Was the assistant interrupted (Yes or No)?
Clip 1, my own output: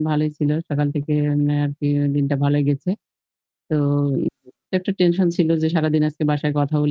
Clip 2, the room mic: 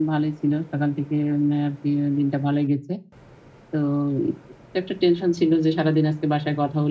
No